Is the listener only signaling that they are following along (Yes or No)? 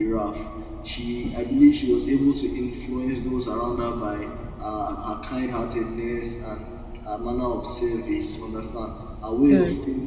Yes